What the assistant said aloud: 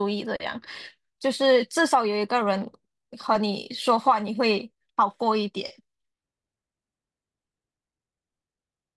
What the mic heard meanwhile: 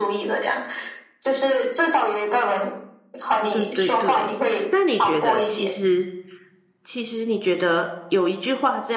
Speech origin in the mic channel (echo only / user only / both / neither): both